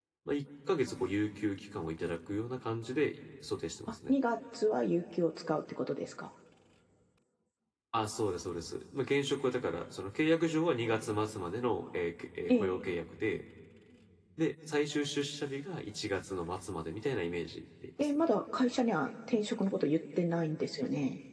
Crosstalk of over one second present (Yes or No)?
No